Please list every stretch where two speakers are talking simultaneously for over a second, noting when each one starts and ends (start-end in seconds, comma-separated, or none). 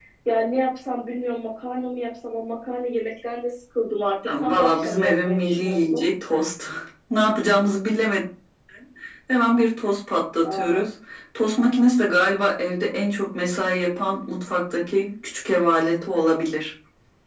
4.4-6.0